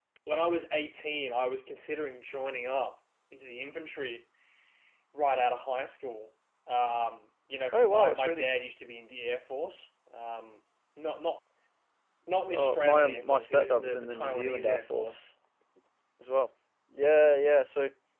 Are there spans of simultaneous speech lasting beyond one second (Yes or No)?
Yes